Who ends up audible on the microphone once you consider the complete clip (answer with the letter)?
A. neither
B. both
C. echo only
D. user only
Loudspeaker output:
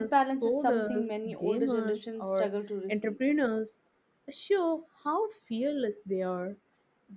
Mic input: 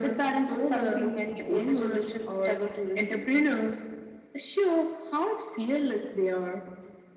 C